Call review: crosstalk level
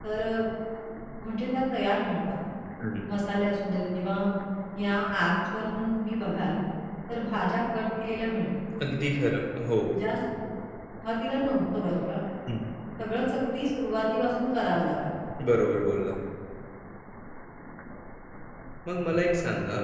none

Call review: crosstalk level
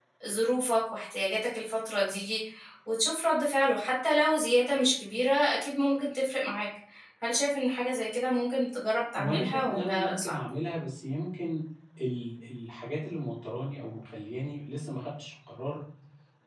present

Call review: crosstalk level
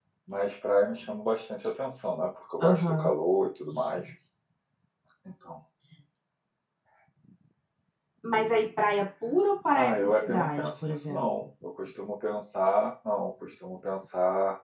present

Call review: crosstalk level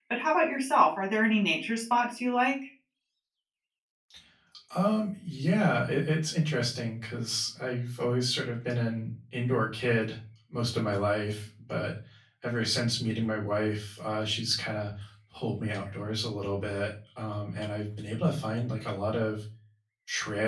none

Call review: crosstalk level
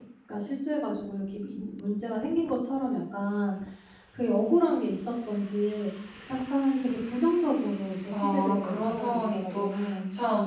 present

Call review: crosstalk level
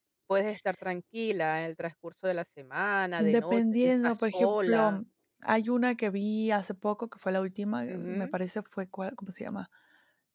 present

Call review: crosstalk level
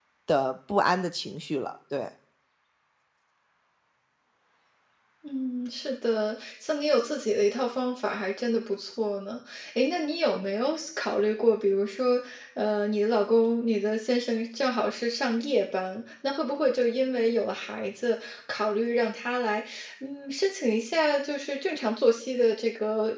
none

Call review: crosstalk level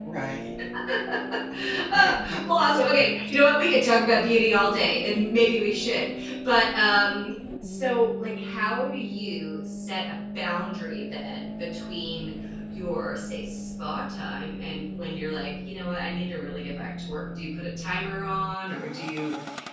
present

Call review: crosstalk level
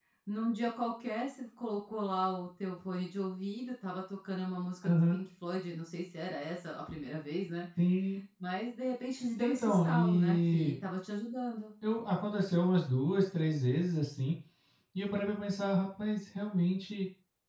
present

